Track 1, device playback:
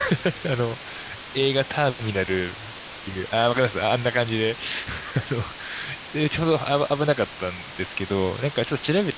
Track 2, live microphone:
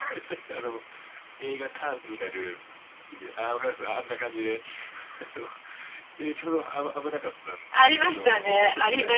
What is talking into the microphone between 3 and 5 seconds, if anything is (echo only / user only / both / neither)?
echo only